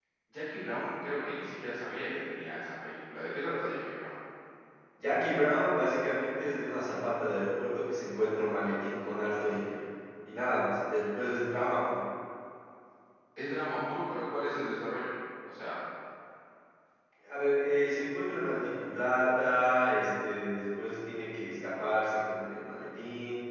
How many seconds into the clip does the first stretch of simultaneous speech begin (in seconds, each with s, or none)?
none